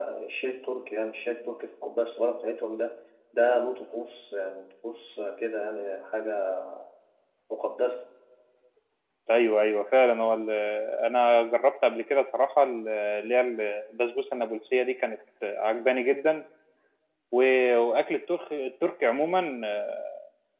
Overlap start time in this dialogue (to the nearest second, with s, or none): none